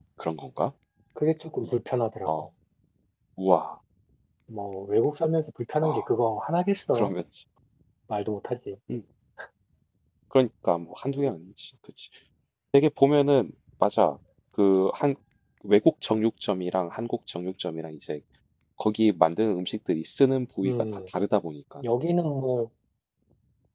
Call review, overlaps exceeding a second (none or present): none